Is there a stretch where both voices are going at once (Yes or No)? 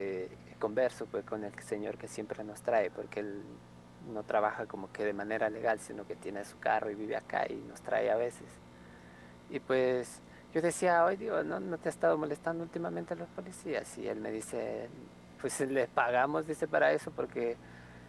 No